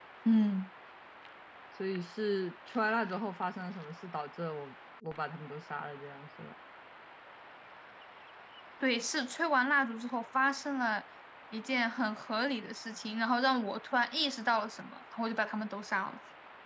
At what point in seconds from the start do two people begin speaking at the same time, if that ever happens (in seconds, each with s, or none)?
none